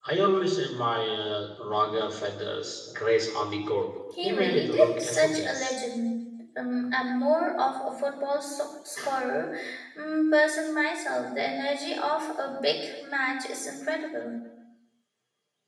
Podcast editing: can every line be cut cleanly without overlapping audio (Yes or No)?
No